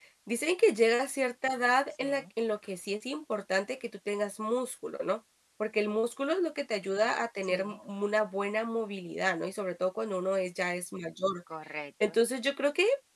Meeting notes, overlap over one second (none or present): none